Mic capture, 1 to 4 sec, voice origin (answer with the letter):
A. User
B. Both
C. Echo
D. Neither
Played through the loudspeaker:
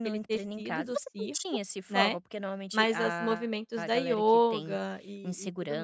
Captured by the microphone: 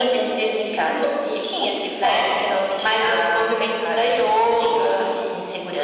C